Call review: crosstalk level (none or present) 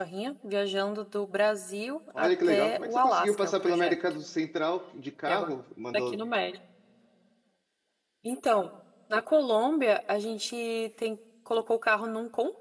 present